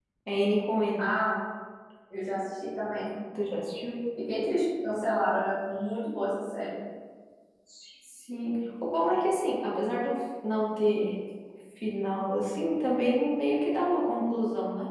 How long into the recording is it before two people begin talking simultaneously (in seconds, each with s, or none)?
none